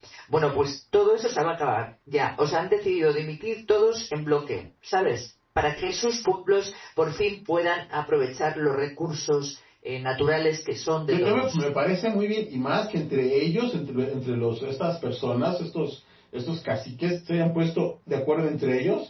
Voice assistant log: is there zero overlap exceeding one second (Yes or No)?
Yes